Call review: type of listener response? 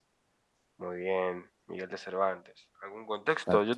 listening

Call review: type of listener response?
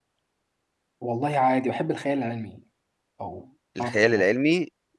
taking over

